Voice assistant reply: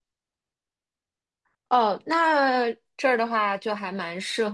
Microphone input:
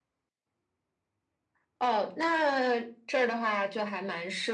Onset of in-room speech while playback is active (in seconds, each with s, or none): none